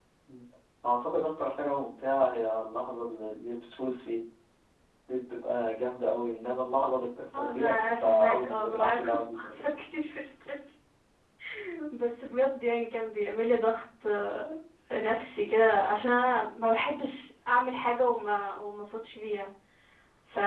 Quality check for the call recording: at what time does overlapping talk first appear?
7.3 s

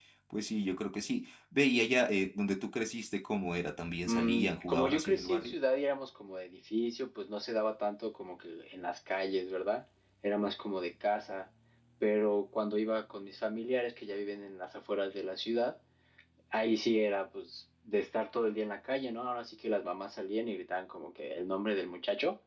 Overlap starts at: 4.0 s

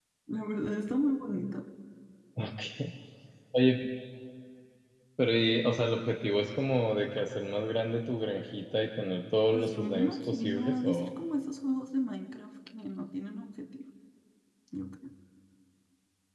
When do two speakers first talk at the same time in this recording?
9.5 s

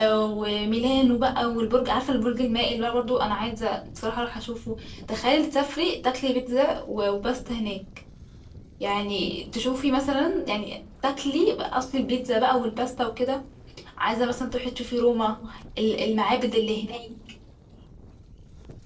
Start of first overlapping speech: none

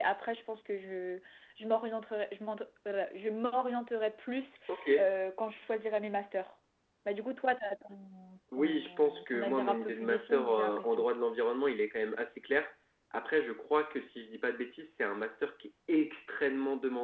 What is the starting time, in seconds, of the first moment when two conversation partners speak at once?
8.5 s

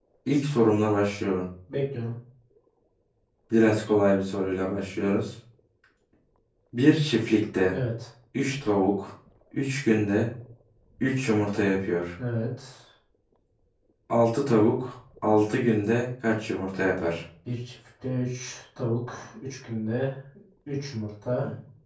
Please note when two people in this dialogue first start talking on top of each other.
none

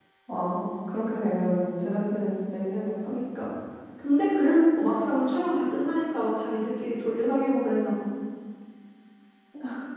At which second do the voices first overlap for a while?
none

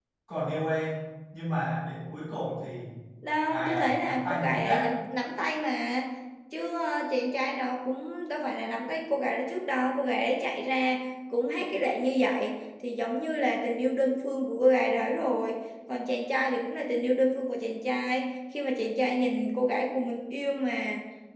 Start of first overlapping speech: 3.5 s

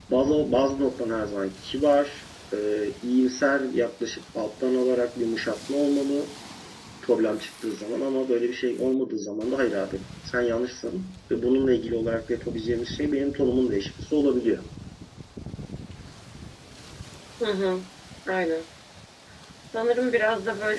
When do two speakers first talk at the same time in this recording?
none

